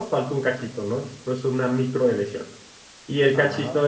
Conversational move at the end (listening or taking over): listening